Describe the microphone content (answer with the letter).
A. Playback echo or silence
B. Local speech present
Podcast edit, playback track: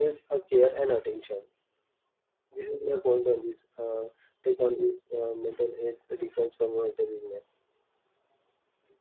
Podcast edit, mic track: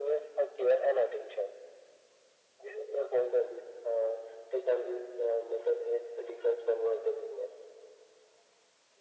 A